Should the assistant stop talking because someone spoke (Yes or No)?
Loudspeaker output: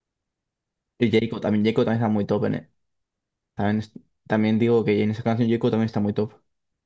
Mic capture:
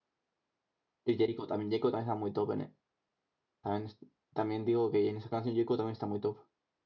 No